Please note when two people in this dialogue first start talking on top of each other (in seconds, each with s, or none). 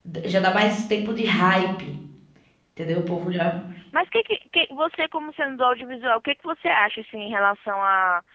none